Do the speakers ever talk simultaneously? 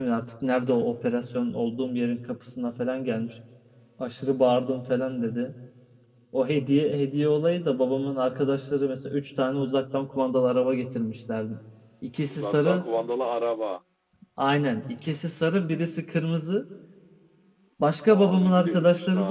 Yes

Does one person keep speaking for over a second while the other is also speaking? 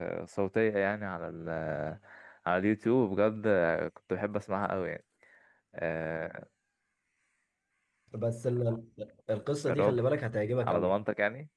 No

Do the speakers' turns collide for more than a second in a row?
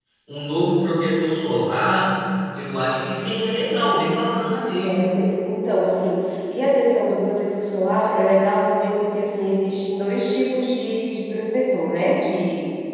No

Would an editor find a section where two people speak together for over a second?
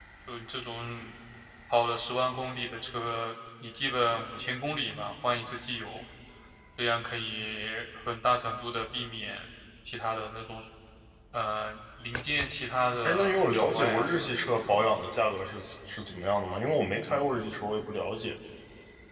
Yes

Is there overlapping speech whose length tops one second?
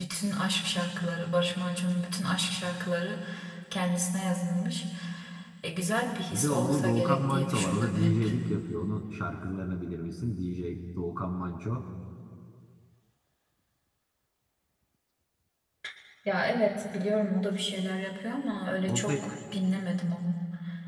Yes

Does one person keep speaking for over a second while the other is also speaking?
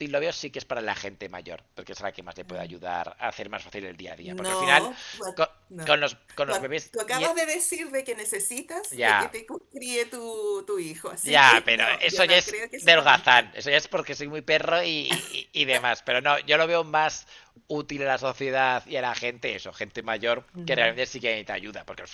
Yes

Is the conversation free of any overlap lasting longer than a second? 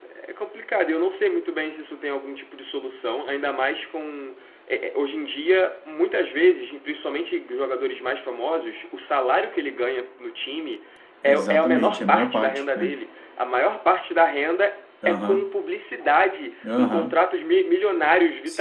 No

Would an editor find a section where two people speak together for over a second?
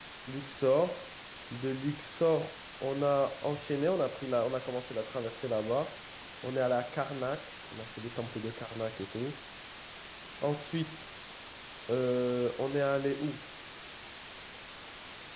No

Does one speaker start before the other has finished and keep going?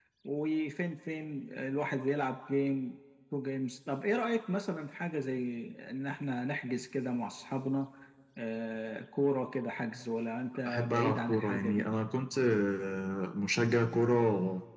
Yes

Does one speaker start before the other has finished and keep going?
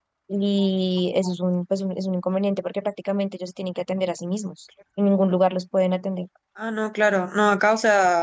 No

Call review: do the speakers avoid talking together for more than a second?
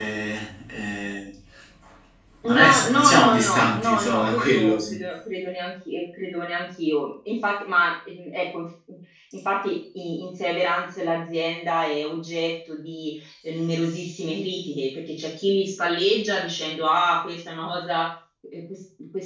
No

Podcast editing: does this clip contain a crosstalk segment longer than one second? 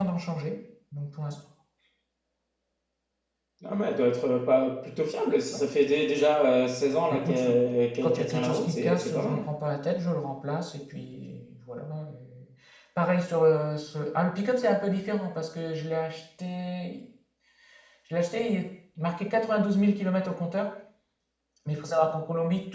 Yes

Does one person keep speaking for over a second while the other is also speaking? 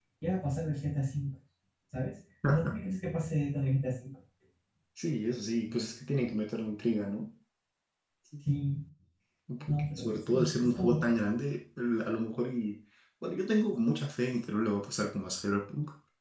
Yes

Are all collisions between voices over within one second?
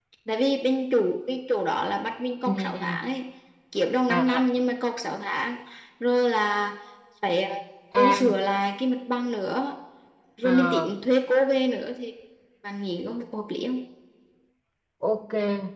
Yes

